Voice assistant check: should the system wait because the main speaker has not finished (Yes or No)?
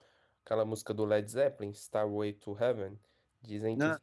Yes